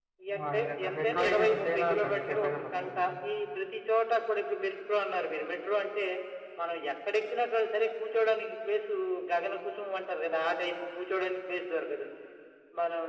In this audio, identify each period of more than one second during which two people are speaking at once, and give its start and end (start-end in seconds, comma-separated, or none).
0.5-2.9